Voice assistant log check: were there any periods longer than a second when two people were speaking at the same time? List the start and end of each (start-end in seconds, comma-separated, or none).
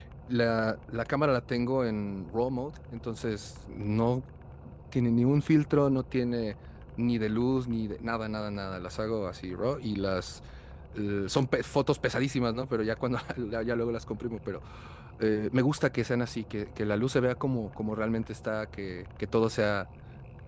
none